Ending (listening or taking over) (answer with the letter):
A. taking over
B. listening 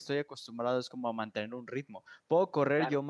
B